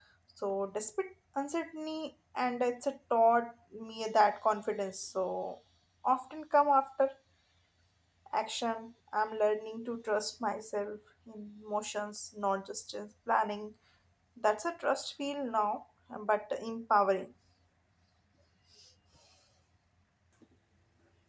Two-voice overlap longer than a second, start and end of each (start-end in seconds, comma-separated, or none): none